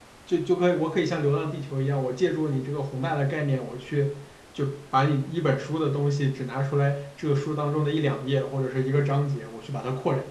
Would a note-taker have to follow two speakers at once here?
No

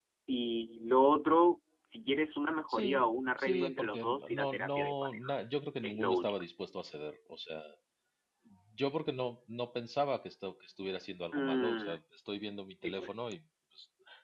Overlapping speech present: Yes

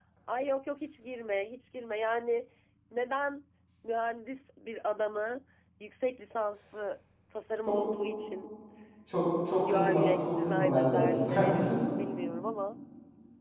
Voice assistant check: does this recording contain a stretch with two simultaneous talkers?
Yes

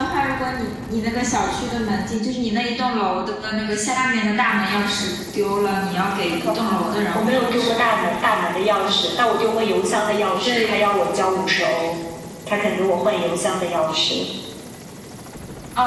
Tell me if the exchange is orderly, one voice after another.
No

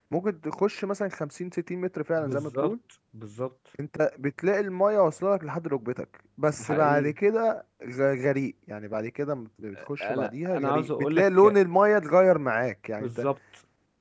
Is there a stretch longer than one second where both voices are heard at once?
Yes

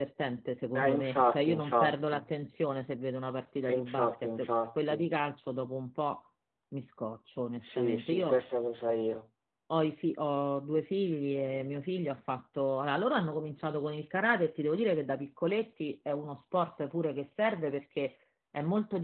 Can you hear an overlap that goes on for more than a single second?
Yes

